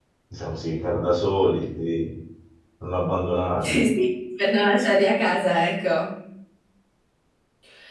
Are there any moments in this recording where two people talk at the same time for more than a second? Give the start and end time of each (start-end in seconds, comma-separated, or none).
none